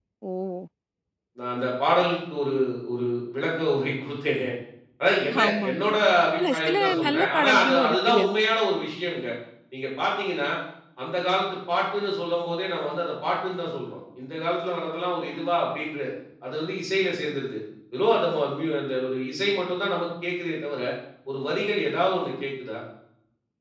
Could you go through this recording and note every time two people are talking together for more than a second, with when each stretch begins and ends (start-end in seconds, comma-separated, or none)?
6.4-8.3